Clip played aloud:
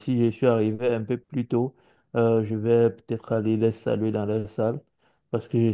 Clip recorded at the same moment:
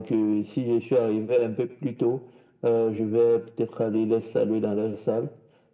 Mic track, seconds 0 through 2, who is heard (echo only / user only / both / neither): echo only